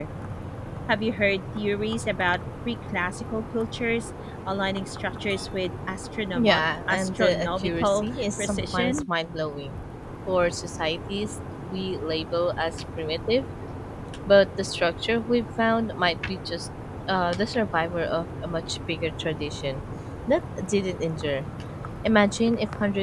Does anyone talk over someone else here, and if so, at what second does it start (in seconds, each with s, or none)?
6.4 s